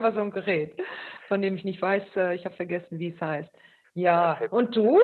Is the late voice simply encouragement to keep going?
Yes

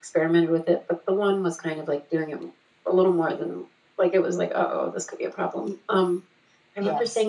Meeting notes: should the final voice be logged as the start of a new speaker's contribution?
No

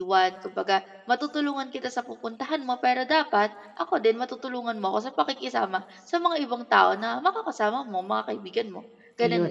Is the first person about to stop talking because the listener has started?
Yes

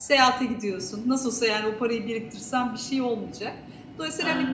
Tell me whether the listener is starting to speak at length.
No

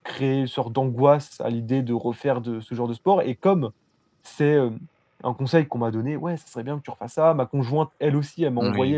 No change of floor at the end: Yes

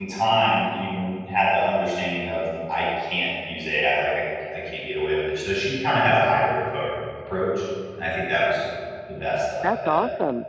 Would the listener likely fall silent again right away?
No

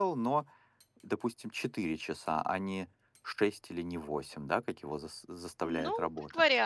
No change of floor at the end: No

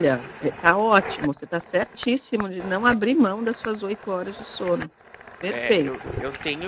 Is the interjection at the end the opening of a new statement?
Yes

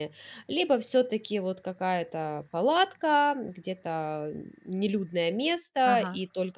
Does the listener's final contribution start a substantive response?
No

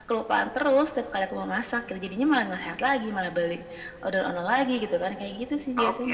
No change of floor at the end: No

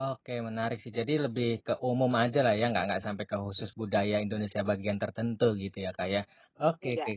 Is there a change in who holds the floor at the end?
No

